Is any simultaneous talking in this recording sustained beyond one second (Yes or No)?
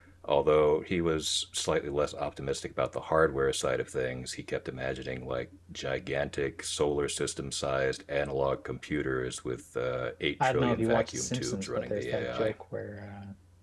Yes